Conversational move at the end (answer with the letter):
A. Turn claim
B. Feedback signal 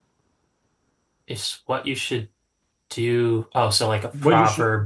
A